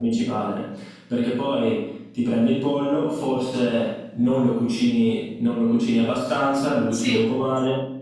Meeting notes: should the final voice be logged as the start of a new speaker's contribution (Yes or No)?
No